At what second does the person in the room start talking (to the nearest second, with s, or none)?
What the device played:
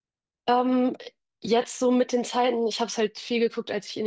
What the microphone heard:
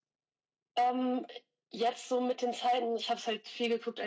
none